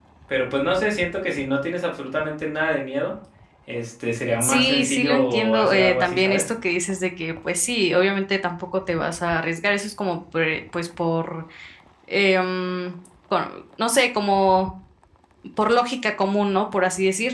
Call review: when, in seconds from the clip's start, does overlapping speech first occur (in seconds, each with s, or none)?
4.4 s